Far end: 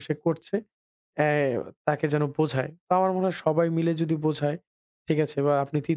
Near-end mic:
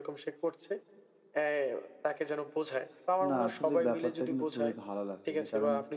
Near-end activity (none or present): present